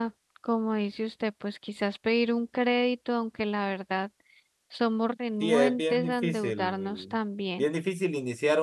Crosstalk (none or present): present